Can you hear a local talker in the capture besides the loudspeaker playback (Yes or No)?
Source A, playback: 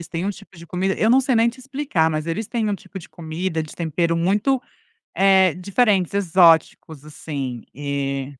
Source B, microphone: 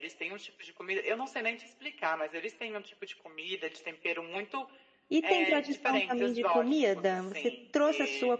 Yes